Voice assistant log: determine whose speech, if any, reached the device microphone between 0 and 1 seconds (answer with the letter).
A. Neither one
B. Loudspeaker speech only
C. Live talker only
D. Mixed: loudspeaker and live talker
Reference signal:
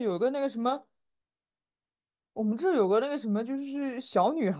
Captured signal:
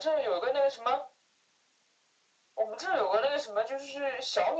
B